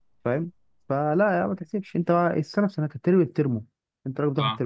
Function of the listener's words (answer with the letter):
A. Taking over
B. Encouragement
B